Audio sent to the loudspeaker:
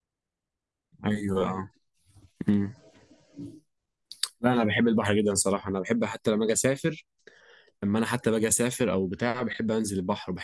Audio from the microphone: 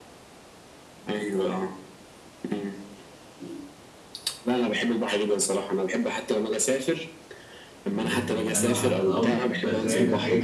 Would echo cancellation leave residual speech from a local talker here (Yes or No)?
Yes